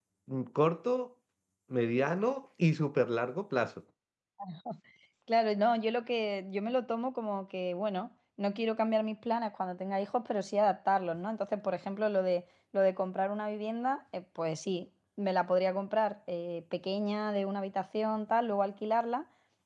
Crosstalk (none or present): none